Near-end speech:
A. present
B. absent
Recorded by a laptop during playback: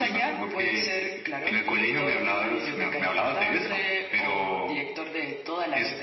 B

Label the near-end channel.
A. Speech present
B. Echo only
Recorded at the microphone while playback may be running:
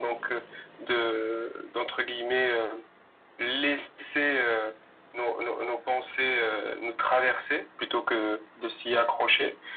B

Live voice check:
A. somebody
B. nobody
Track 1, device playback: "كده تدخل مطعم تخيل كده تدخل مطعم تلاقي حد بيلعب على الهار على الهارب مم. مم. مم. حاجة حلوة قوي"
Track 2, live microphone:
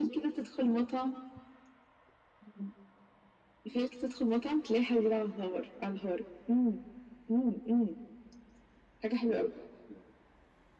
B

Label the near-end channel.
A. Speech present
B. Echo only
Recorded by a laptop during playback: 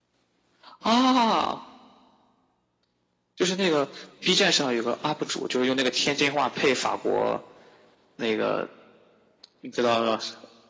B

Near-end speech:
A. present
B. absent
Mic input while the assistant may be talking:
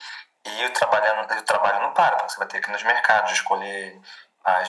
B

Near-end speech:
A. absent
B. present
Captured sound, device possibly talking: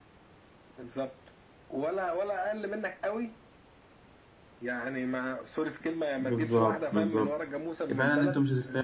B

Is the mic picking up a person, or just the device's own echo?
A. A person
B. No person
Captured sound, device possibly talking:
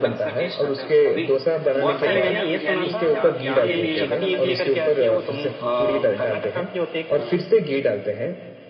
A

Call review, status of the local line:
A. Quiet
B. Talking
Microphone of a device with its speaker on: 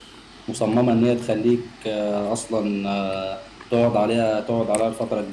B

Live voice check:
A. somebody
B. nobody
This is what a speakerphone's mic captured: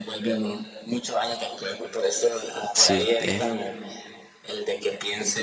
A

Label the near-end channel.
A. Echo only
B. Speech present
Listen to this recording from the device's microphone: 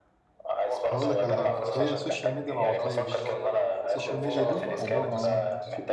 B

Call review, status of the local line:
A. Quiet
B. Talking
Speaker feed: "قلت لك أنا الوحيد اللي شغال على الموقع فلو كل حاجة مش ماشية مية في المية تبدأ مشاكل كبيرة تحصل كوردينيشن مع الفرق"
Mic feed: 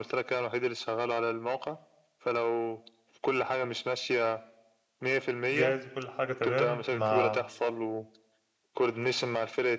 B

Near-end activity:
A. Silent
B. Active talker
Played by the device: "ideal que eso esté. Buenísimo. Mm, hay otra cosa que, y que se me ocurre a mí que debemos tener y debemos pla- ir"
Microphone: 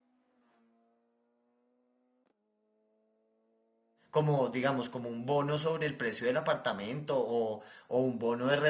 B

